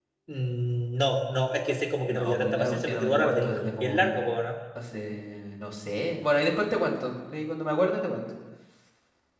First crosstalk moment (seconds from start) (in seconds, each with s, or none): 2.1 s